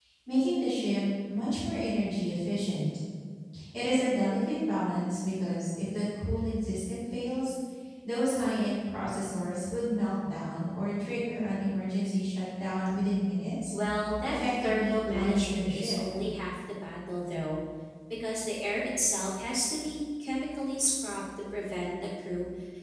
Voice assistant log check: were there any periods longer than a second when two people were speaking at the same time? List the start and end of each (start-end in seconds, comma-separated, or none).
14.2-16.0